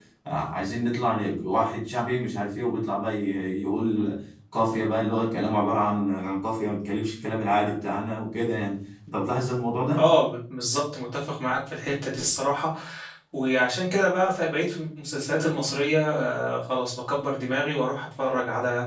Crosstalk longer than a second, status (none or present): none